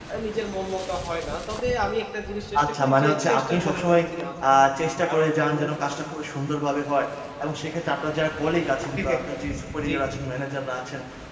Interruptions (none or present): present